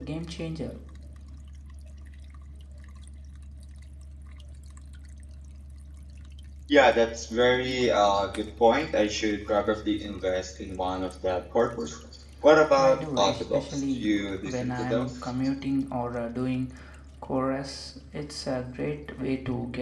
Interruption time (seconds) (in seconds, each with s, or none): 12.8 s